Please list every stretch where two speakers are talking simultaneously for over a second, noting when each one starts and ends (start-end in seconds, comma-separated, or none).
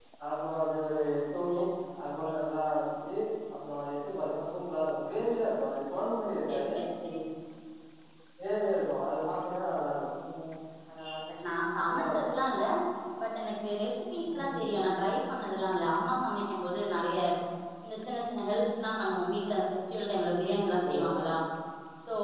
none